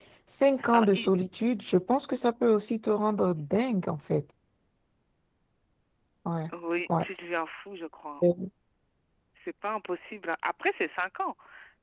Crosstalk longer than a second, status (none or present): none